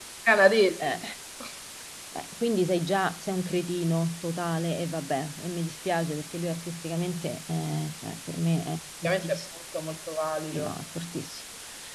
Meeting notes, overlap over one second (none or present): none